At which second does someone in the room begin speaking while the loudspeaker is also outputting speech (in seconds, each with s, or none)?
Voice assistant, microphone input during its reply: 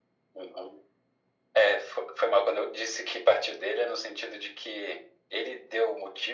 none